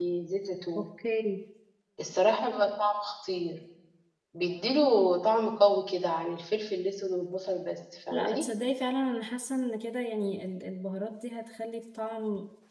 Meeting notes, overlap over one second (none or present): none